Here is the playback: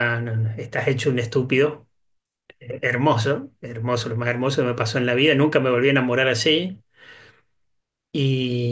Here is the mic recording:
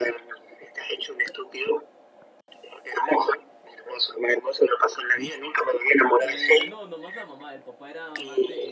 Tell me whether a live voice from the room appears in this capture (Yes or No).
Yes